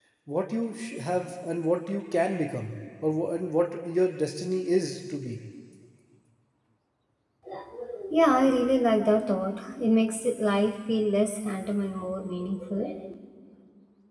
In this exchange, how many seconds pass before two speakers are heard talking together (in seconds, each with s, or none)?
none